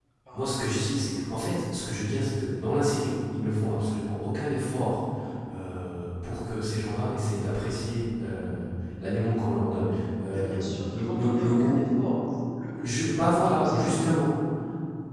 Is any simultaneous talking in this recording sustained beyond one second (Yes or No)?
Yes